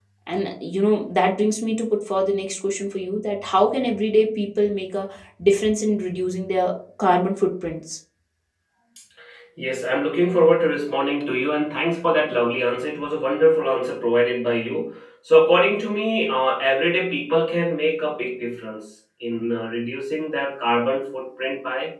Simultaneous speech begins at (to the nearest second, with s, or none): none